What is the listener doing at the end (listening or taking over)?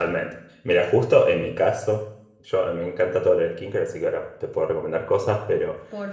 listening